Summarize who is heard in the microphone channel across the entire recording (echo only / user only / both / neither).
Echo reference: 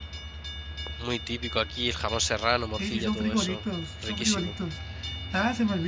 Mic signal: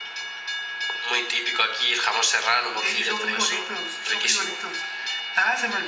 echo only